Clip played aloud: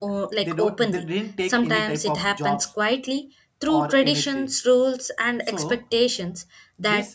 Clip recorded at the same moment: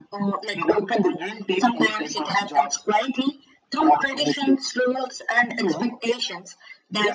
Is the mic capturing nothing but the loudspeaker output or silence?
Yes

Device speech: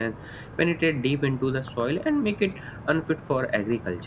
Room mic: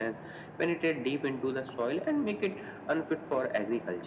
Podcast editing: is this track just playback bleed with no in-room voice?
Yes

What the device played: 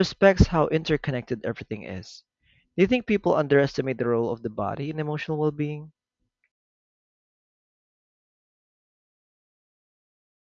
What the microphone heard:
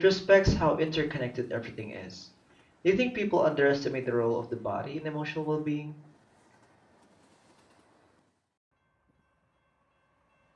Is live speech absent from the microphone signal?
Yes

